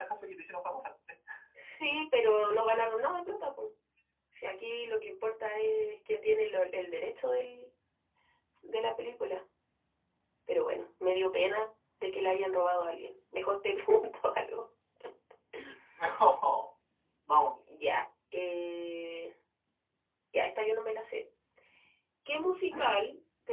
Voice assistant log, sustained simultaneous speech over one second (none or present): none